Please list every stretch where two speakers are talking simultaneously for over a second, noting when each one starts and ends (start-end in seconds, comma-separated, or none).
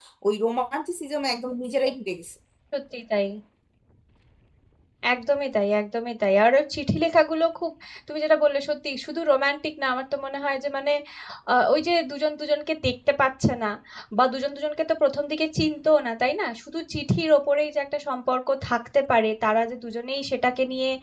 none